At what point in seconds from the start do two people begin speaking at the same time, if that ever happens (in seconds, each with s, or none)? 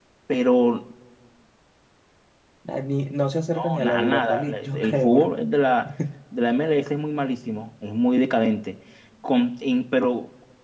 3.5 s